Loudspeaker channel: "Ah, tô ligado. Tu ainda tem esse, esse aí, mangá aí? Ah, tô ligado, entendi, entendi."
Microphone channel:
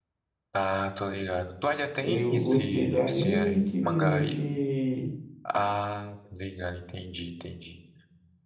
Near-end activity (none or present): present